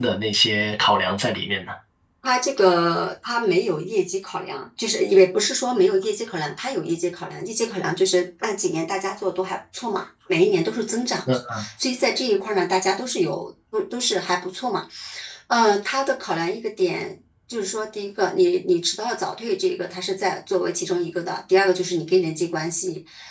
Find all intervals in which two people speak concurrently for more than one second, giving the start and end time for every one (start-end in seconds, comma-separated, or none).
none